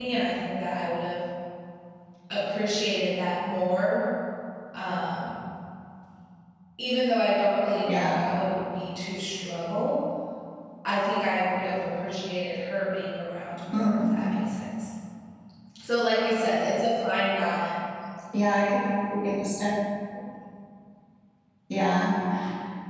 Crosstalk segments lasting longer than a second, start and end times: none

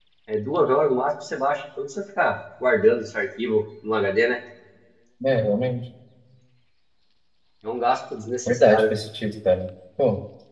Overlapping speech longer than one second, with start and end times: none

